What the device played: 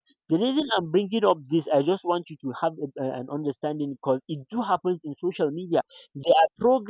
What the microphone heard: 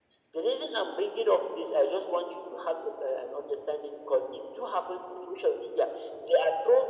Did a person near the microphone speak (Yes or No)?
No